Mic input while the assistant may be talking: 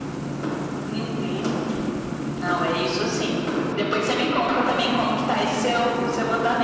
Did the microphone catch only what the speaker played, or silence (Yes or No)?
Yes